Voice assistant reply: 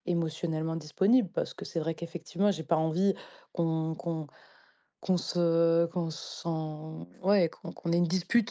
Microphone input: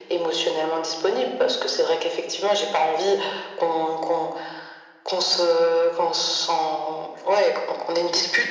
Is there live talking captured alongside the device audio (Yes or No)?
No